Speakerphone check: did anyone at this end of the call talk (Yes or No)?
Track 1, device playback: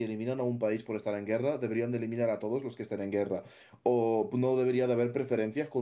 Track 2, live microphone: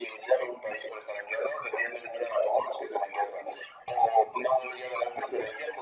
No